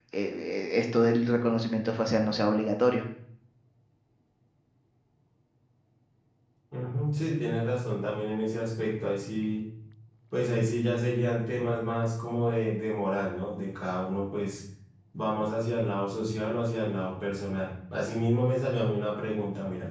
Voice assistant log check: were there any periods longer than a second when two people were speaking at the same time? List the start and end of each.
none

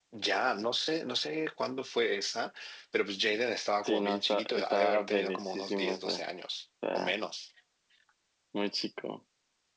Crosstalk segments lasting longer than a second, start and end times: 3.8-6.2

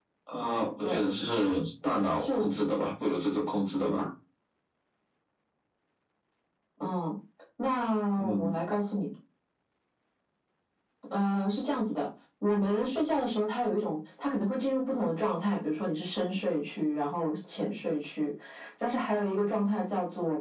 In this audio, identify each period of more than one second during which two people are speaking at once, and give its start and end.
none

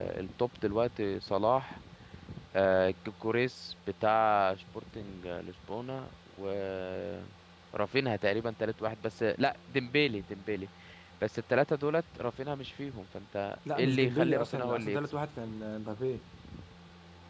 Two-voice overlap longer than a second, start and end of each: 13.8-15.0

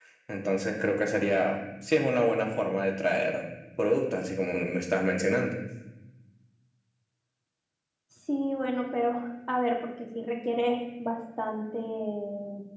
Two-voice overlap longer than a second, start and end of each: none

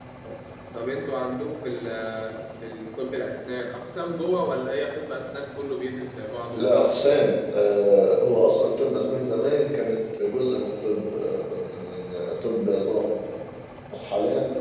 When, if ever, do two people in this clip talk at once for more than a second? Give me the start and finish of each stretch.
none

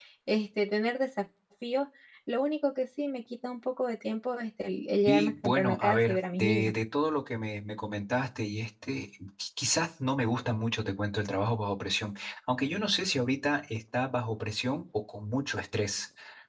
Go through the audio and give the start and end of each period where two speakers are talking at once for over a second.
5.1-6.7

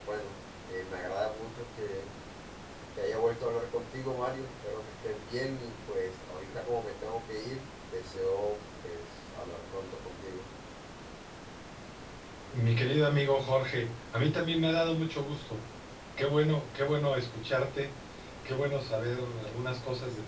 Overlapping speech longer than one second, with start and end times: none

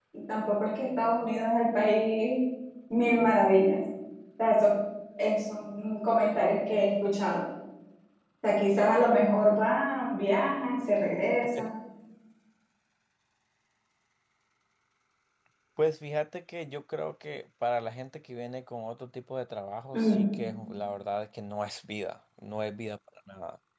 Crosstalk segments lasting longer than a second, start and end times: none

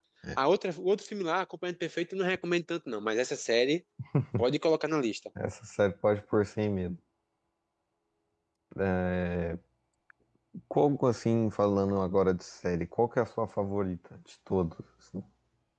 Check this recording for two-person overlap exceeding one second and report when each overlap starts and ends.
none

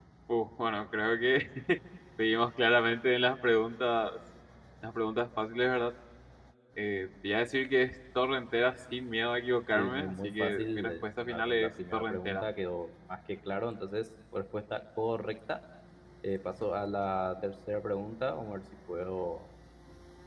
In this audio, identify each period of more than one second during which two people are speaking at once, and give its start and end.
9.8-12.4

